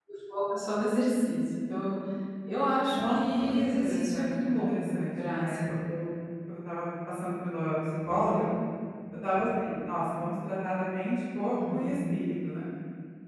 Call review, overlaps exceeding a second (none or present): present